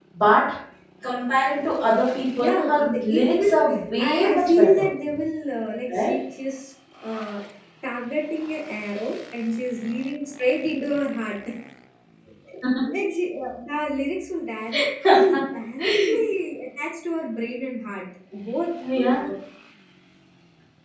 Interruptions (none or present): present